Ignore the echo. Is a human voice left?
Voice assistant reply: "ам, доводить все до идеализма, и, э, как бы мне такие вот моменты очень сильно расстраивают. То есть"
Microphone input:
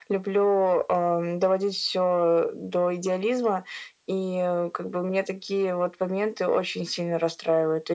No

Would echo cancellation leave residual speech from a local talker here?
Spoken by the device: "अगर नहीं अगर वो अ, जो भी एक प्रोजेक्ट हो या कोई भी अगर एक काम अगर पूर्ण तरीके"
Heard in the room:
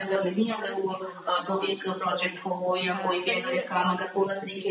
Yes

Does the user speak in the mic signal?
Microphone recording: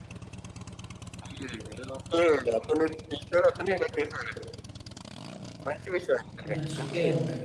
Yes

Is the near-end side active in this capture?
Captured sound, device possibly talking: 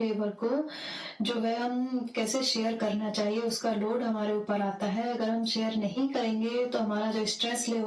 No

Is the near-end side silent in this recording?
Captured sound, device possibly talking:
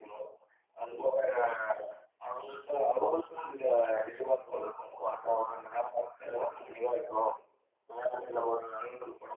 Yes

